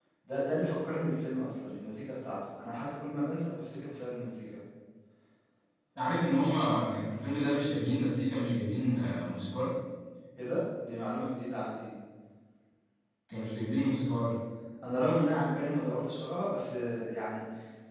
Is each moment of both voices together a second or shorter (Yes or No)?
Yes